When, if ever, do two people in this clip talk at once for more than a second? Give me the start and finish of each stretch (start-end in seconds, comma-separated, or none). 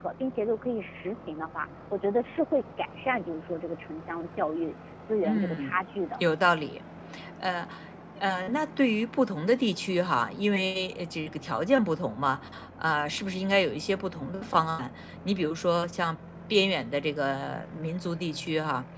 none